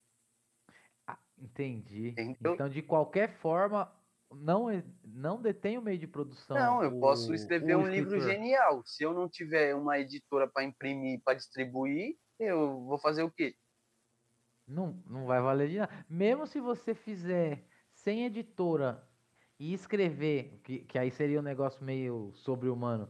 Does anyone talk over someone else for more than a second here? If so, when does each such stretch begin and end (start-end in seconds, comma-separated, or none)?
6.5-8.4